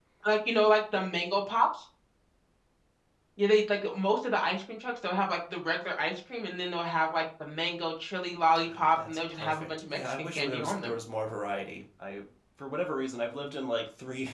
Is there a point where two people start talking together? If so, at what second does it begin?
8.7 s

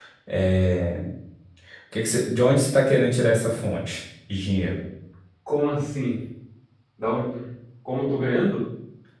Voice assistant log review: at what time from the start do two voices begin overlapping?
none

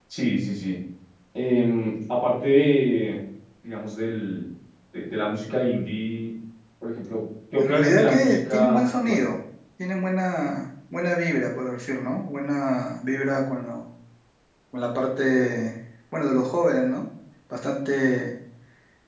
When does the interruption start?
7.5 s

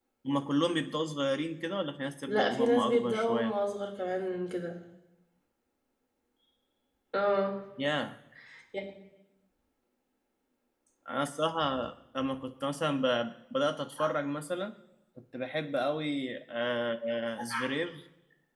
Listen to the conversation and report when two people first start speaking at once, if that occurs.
2.3 s

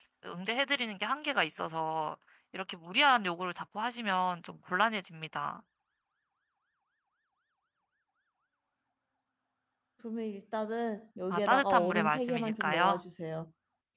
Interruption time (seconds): 11.3 s

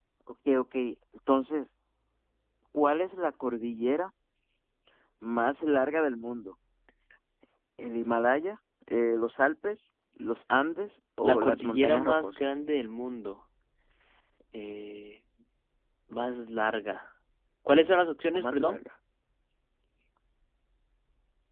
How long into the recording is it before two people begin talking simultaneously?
11.2 s

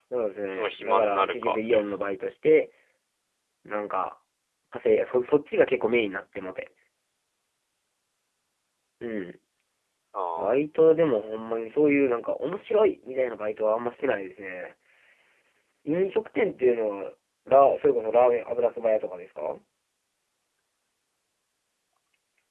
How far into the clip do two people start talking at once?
0.5 s

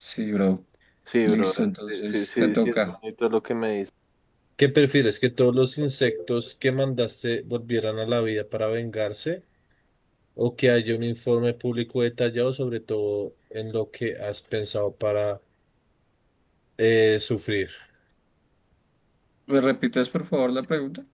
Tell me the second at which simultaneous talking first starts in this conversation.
1.2 s

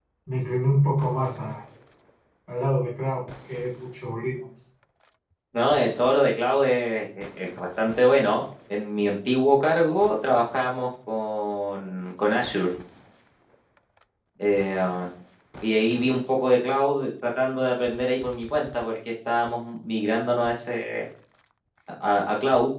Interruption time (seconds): none

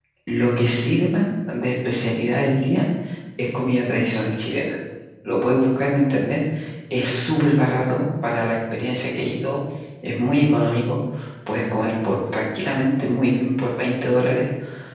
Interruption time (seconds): none

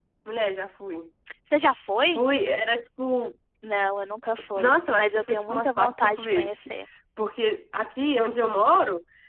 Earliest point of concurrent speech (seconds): 4.4 s

